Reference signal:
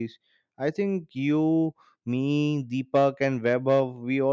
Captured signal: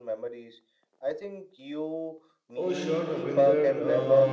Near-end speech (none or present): present